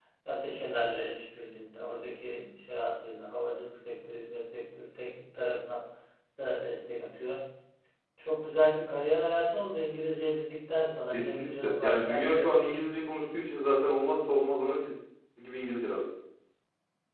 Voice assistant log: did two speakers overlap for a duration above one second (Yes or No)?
Yes